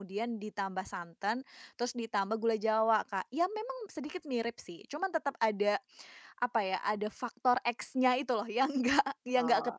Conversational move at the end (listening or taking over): listening